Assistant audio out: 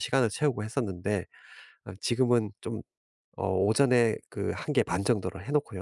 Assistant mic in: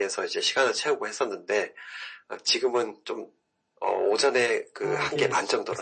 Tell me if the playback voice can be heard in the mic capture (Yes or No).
Yes